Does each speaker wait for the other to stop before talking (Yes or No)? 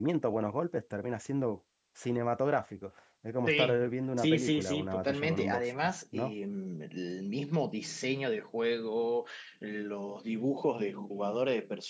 No